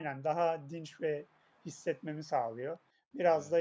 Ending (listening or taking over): listening